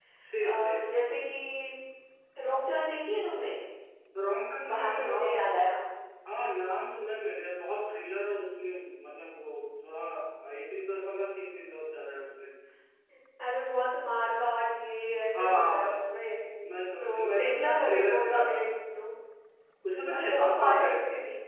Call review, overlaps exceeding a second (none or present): present